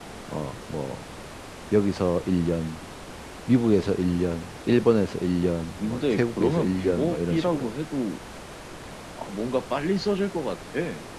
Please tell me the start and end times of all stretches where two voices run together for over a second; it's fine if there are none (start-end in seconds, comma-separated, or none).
5.8-7.7